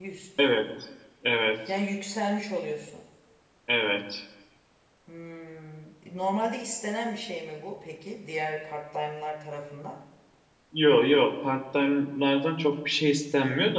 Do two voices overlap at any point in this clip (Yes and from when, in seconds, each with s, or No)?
No